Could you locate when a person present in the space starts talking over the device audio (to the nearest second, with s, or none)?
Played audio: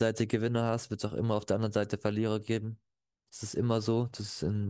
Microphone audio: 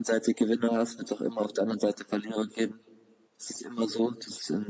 none